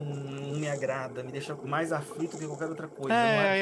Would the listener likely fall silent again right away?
No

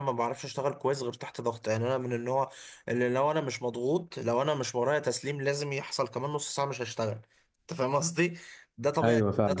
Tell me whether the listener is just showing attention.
Yes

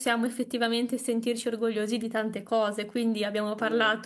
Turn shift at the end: No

